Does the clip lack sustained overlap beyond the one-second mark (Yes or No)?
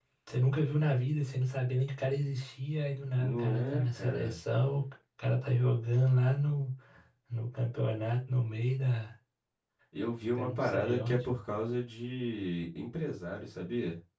No